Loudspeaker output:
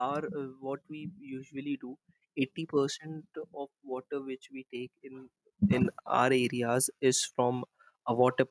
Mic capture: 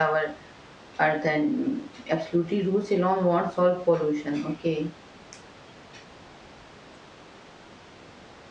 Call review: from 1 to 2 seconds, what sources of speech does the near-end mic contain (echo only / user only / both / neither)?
user only